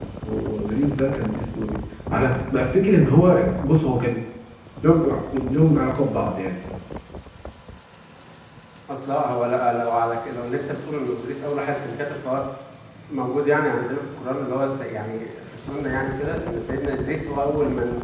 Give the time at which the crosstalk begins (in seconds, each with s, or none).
none